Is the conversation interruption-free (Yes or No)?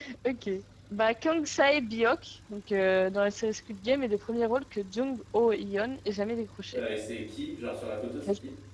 Yes